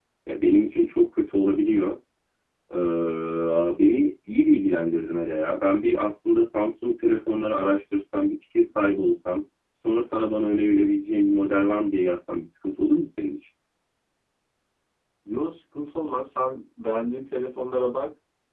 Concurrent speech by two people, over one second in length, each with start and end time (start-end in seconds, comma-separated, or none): none